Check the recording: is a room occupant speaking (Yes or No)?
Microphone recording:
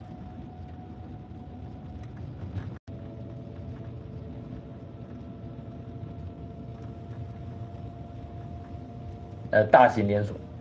Yes